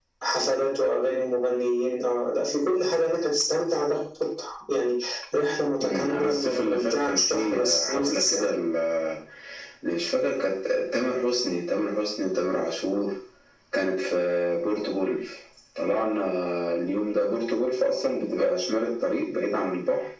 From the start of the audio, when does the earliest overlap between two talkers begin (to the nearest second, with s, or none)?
6 s